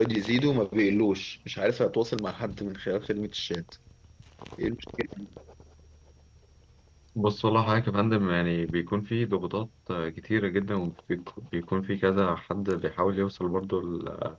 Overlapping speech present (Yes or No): No